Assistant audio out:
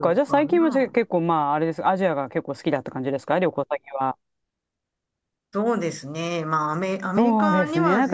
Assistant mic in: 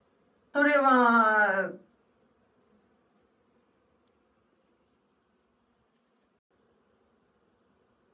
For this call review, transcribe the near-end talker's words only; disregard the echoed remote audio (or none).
それは、